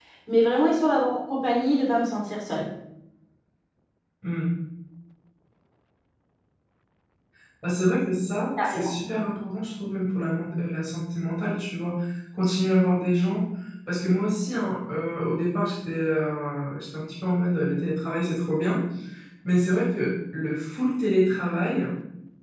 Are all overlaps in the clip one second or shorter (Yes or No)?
Yes